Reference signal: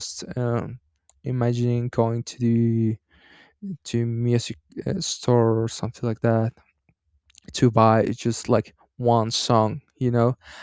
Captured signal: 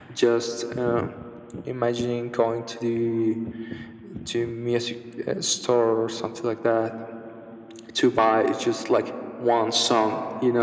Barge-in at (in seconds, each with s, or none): none